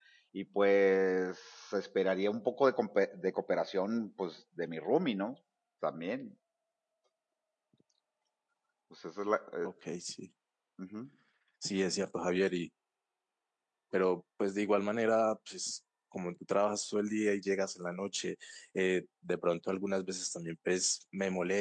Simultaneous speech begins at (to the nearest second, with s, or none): none